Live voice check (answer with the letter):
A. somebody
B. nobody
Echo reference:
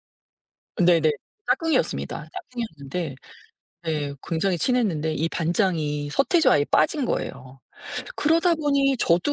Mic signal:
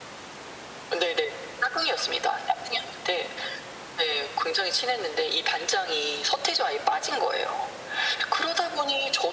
B